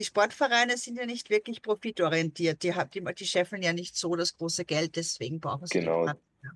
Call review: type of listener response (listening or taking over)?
taking over